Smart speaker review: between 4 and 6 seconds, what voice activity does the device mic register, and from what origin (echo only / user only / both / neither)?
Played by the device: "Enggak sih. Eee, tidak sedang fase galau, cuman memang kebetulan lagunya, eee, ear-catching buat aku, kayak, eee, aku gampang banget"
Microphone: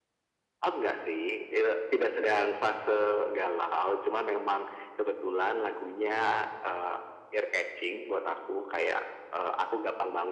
echo only